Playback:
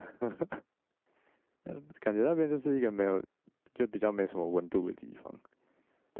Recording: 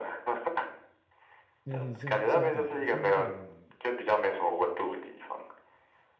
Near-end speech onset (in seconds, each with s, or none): 1.6 s